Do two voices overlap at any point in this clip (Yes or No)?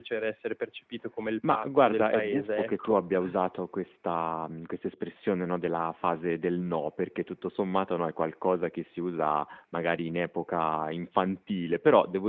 Yes